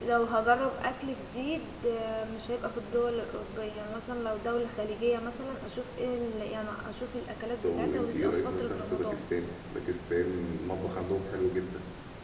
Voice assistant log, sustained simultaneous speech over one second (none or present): present